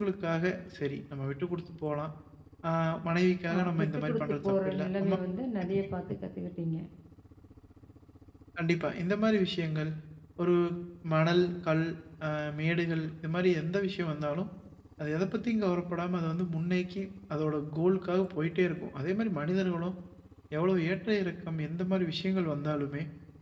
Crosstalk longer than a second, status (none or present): present